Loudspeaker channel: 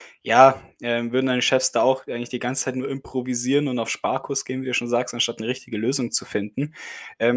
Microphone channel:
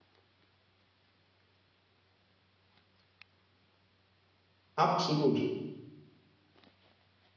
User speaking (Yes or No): Yes